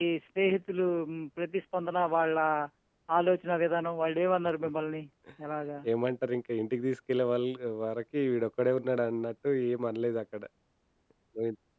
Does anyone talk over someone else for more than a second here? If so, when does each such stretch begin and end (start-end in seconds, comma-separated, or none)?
none